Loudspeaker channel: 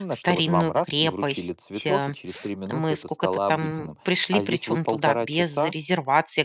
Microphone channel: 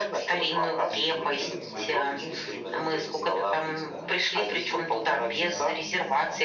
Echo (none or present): present